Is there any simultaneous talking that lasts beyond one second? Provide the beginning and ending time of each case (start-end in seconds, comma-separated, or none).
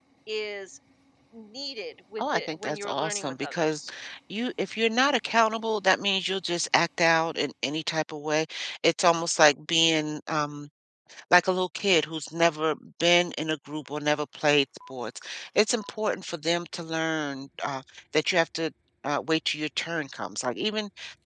2.2-3.8